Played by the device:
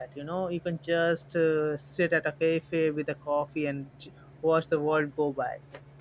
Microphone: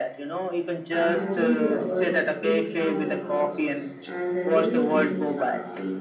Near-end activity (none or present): present